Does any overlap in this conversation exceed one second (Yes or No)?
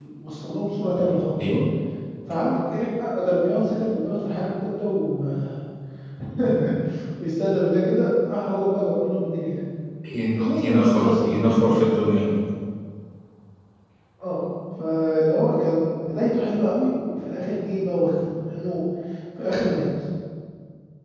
Yes